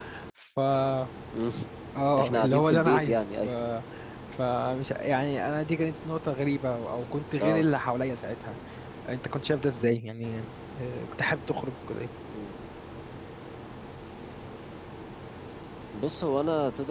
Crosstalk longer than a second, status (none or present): present